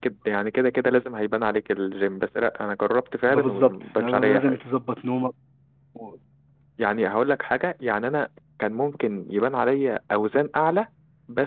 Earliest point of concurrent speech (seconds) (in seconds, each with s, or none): 3.3 s